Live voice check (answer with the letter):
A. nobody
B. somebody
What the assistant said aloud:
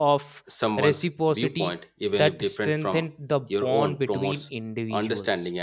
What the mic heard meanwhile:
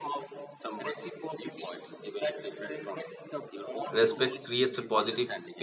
B